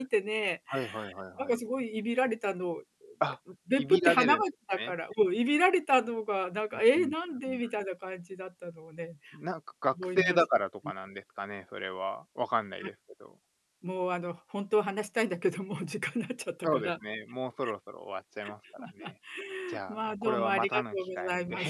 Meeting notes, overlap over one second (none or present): present